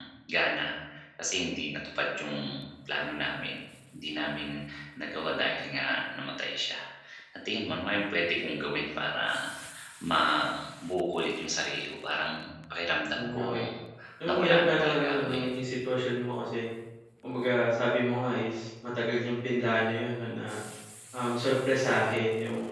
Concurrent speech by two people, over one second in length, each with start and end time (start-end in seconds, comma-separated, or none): 14.3-15.5